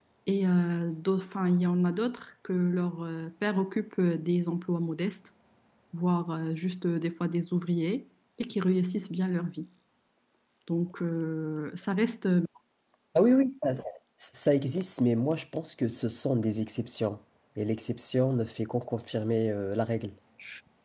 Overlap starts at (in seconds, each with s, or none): none